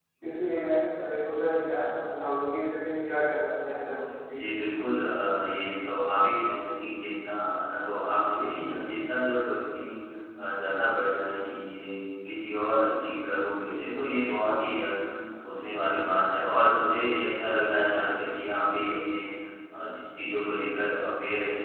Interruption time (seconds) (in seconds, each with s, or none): none